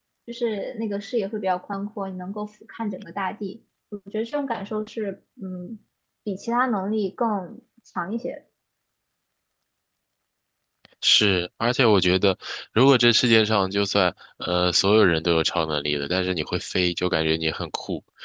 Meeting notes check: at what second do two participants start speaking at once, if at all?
none

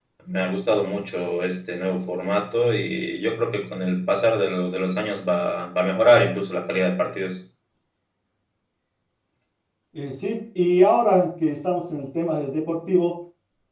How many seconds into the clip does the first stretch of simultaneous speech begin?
none

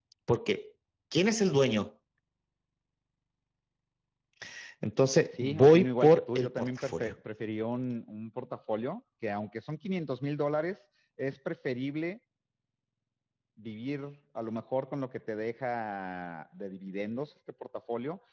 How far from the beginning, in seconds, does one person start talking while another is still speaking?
5.3 s

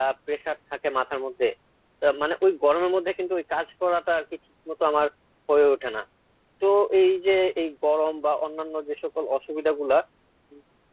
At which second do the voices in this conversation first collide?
none

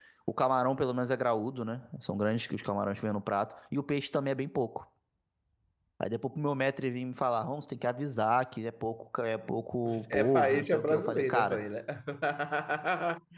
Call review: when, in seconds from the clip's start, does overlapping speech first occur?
9.8 s

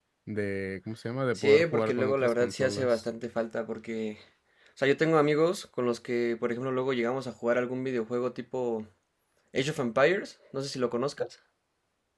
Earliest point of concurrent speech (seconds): 1.4 s

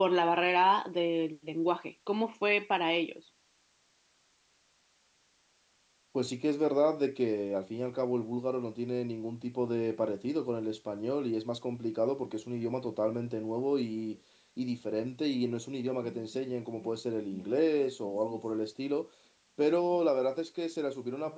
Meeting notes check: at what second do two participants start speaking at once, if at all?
none

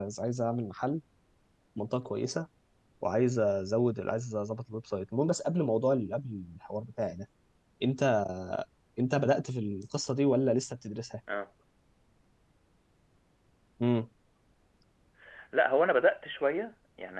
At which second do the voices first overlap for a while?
none

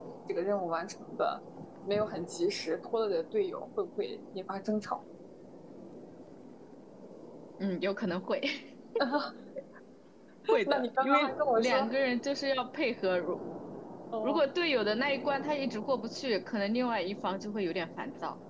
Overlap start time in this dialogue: 10.6 s

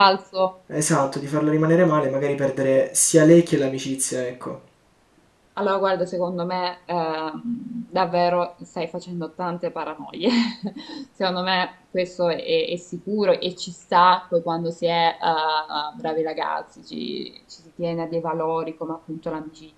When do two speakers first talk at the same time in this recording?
none

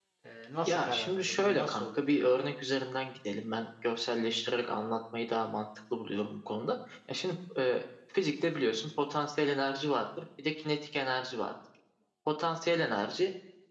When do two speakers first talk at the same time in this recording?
0.6 s

